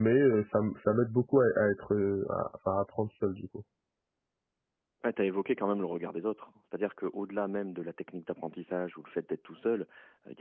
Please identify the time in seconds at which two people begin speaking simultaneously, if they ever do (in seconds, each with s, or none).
none